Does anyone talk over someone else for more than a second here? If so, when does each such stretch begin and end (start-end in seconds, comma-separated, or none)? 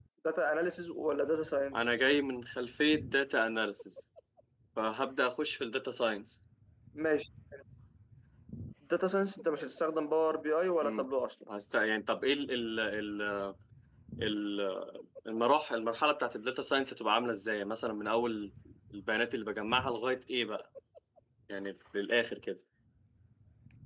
none